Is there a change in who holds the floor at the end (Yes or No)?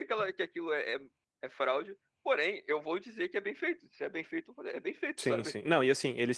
Yes